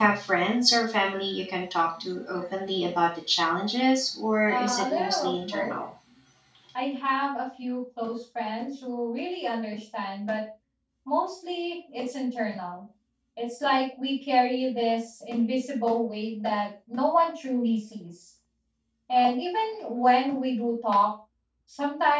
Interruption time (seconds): 4.5 s

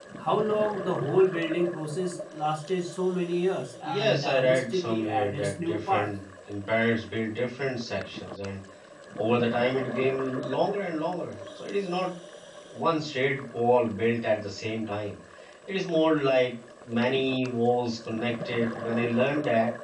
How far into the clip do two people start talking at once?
3.8 s

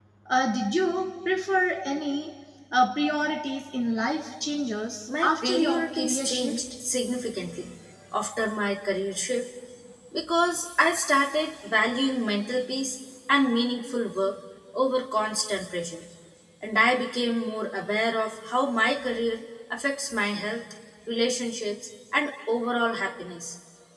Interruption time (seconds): 5.1 s

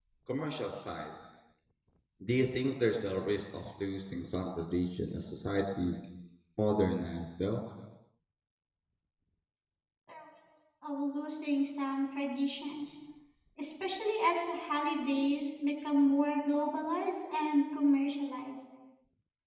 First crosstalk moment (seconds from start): none

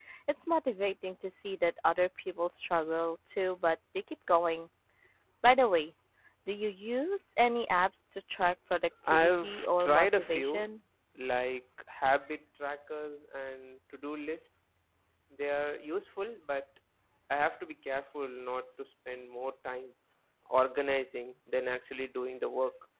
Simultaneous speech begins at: 9.1 s

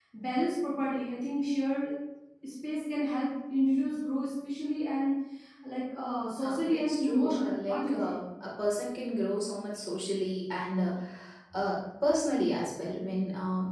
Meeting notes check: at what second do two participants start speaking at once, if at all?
6.4 s

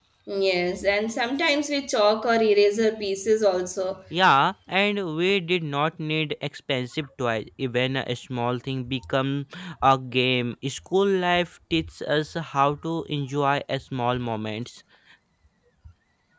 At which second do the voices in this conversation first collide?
none

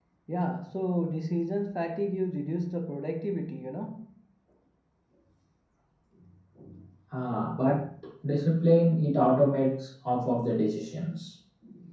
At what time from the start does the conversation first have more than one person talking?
none

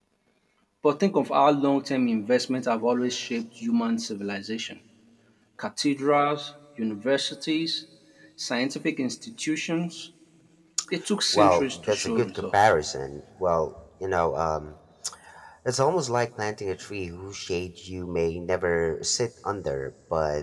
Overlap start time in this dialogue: 11.3 s

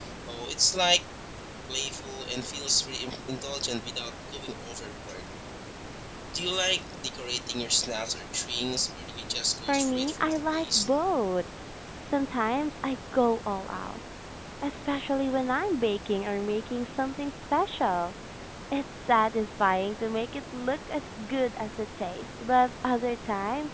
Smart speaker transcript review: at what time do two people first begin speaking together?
9.7 s

